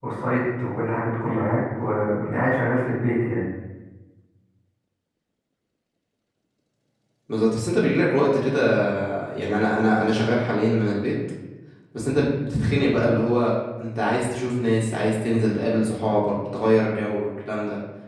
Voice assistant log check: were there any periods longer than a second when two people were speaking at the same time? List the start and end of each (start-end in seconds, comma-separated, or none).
none